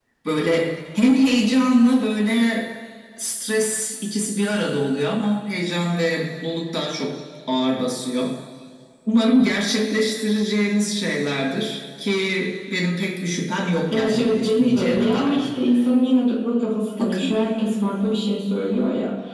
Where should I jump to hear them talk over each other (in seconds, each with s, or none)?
13.9 s